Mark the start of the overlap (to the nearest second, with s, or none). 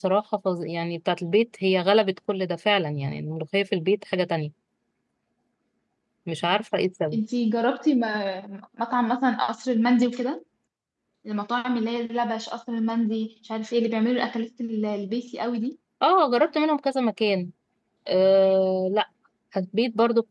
none